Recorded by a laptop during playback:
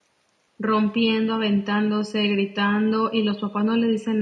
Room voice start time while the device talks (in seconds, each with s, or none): 0.6 s